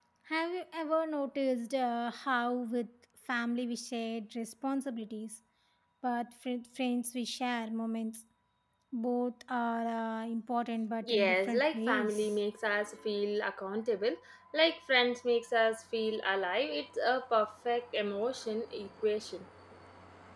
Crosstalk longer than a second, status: present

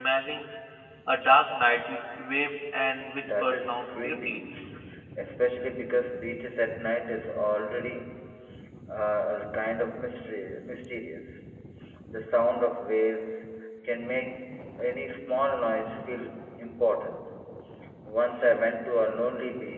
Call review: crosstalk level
present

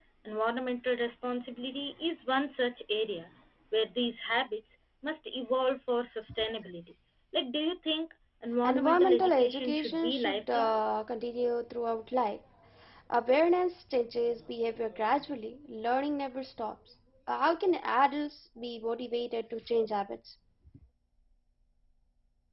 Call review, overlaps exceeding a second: present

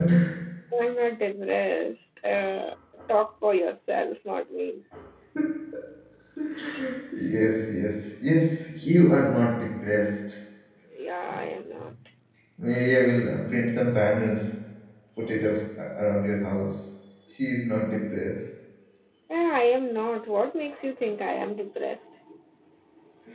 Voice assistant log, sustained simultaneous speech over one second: none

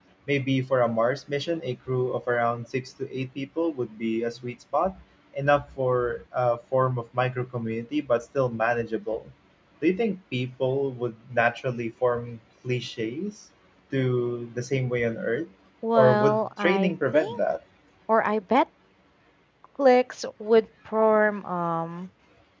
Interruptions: present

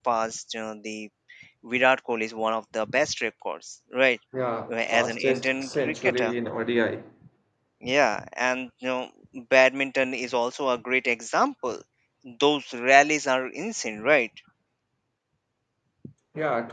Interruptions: present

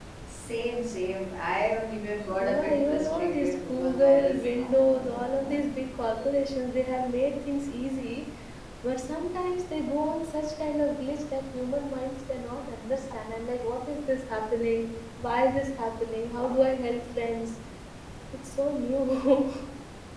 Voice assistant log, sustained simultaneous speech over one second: present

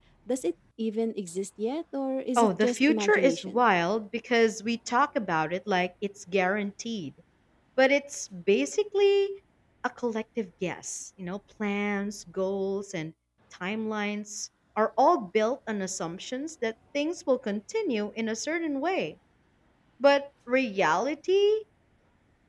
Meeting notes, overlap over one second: present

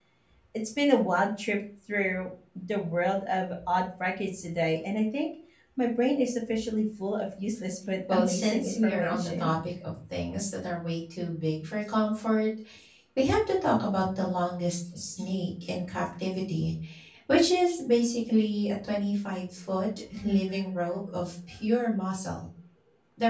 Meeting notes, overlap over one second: present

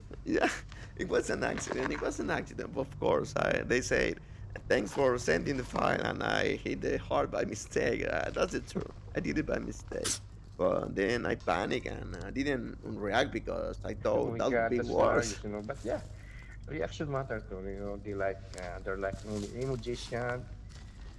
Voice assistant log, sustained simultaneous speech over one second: present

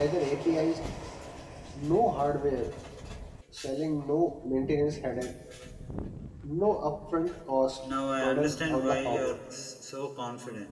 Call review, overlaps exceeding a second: present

